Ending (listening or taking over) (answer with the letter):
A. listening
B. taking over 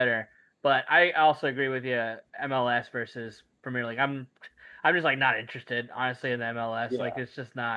A